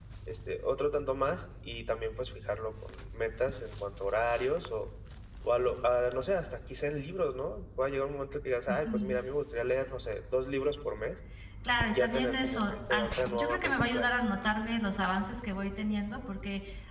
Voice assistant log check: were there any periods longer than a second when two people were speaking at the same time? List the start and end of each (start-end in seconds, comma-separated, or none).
11.8-14.1